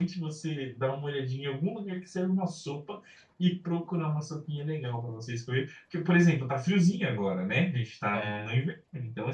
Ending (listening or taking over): listening